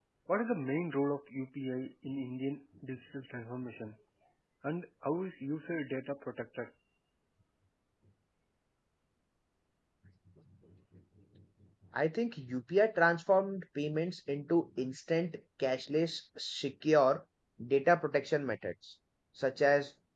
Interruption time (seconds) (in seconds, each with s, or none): none